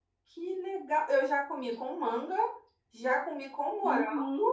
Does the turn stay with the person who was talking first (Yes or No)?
No